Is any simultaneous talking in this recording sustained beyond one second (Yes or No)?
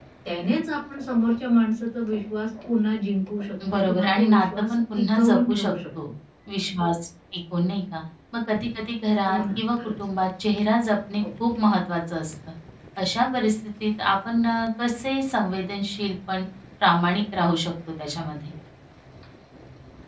Yes